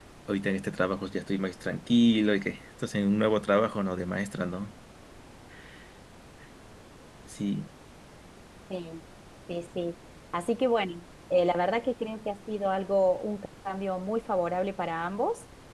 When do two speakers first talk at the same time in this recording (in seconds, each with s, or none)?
none